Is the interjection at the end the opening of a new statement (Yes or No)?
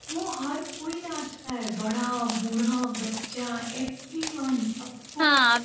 Yes